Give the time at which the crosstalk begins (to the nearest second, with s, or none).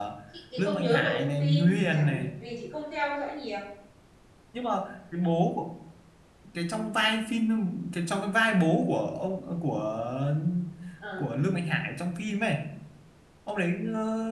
1 s